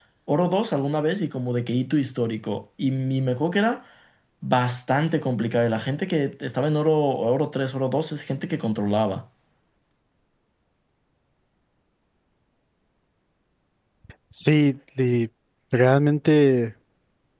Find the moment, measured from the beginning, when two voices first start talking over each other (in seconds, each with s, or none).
none